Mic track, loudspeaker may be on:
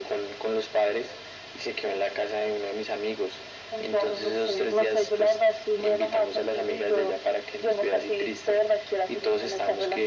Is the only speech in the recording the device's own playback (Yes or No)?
Yes